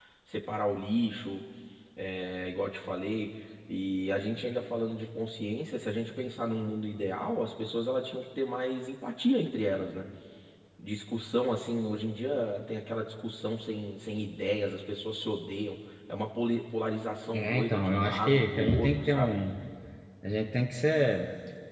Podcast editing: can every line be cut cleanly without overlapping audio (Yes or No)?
No